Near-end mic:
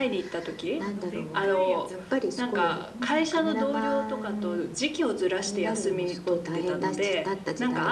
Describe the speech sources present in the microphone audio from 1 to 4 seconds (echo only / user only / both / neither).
both